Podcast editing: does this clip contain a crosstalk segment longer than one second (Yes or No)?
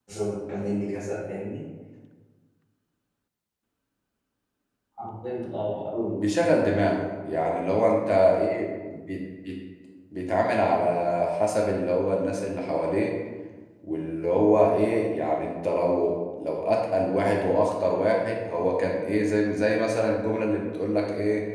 No